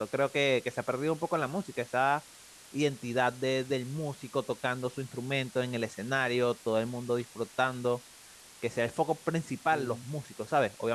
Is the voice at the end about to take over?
No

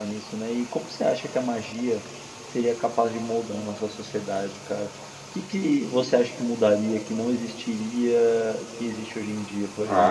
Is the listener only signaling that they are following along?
No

